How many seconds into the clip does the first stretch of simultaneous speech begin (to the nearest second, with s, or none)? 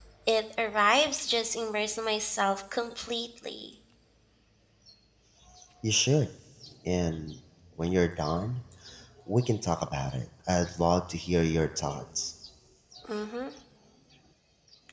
none